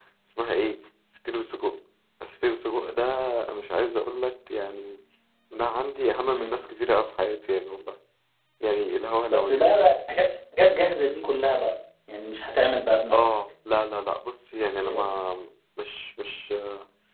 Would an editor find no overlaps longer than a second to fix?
Yes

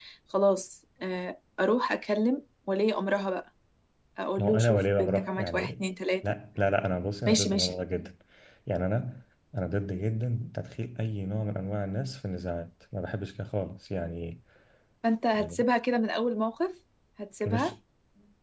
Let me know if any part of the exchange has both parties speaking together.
Yes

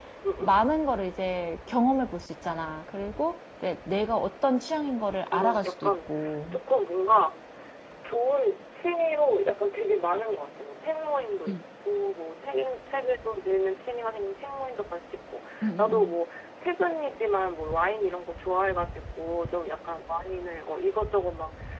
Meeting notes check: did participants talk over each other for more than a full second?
Yes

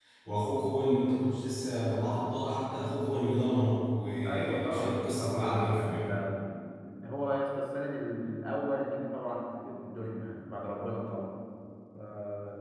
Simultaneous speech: Yes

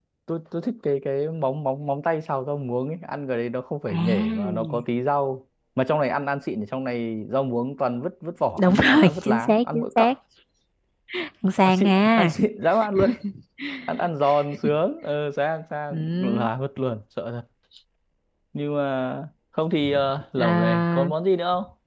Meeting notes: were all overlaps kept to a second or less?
No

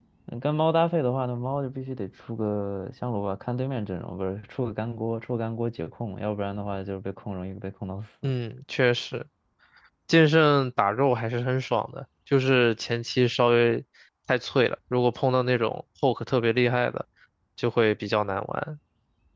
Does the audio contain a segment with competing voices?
No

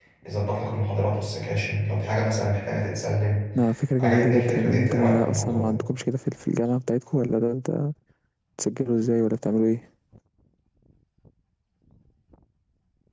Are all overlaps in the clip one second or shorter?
No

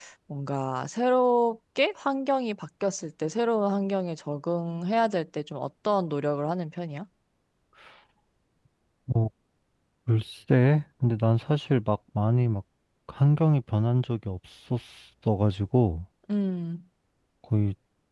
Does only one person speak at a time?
Yes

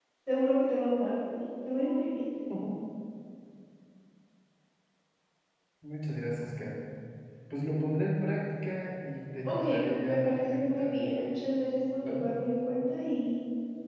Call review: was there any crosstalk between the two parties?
Yes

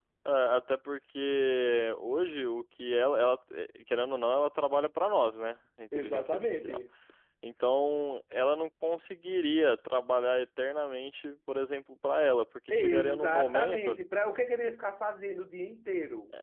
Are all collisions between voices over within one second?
No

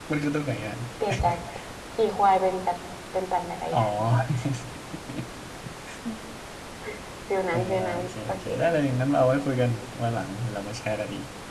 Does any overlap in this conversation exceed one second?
Yes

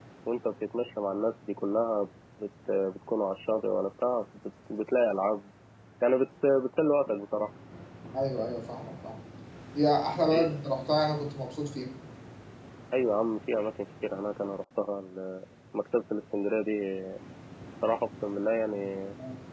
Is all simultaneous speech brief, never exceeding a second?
Yes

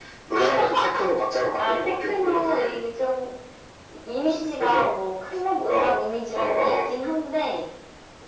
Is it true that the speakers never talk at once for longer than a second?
No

